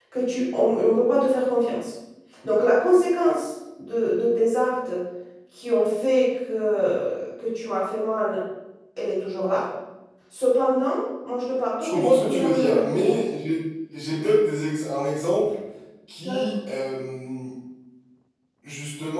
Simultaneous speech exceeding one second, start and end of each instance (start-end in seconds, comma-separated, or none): 11.8-13.1